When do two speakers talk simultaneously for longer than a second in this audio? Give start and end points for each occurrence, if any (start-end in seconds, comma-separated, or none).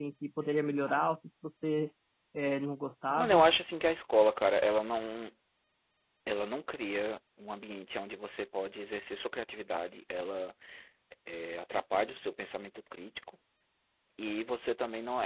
none